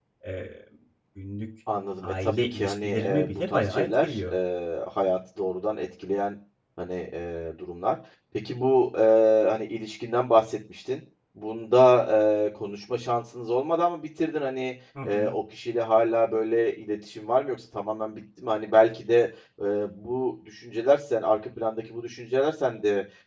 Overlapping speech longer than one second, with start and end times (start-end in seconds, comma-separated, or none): 2.0-4.3